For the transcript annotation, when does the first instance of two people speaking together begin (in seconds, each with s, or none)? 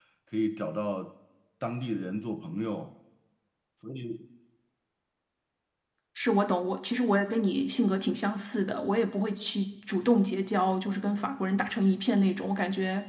none